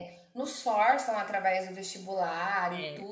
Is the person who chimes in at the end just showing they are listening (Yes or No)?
Yes